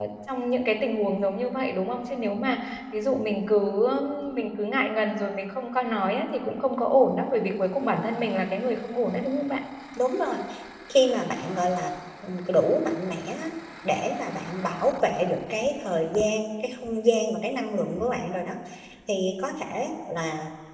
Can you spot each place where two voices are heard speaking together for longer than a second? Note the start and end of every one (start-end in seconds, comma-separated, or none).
none